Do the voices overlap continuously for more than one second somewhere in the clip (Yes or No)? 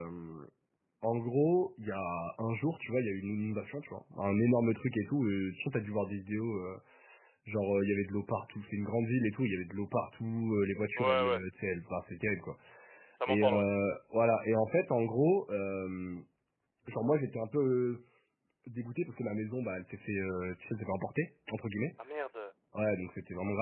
No